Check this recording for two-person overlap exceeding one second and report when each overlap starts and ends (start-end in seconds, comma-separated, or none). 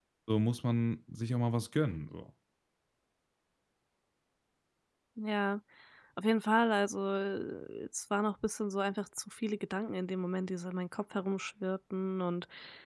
none